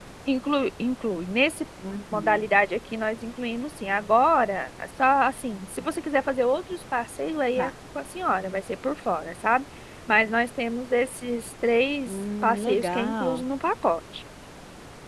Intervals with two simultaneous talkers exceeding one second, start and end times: 12.1-13.4

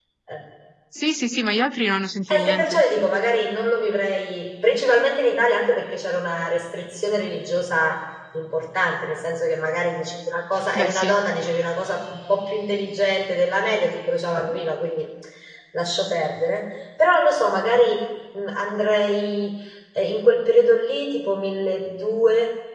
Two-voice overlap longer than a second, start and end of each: none

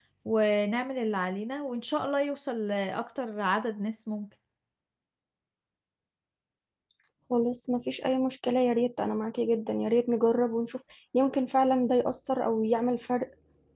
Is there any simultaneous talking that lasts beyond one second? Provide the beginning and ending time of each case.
none

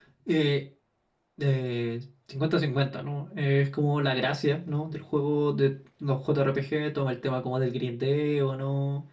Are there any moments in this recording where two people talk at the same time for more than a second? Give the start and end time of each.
none

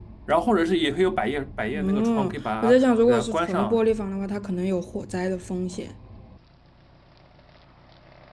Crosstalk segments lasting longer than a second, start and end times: 1.7-3.8

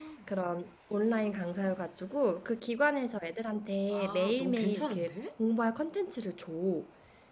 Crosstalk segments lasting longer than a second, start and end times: 3.9-5.1

